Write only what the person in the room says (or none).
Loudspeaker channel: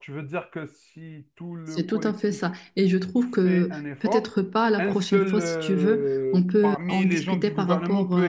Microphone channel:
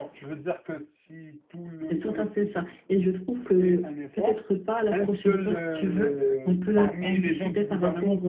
none